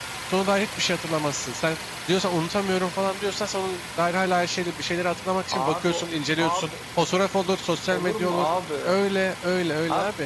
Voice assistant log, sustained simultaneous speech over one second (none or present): none